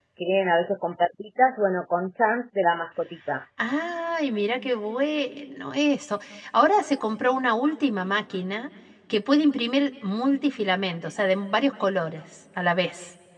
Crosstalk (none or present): none